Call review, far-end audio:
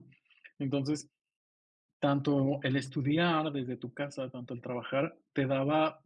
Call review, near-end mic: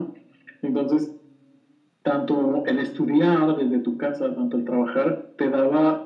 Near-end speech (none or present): none